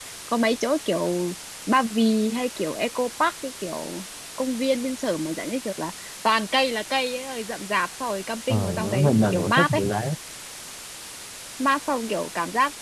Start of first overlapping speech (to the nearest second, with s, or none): 8 s